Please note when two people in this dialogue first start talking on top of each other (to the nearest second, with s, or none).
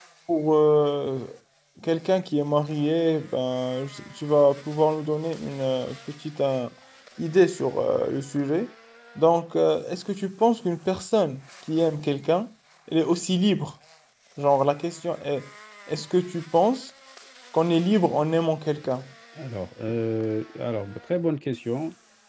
none